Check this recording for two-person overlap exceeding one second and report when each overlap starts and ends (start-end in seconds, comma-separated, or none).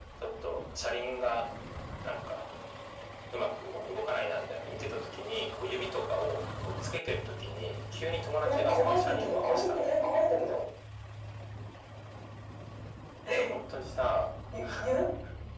8.4-9.8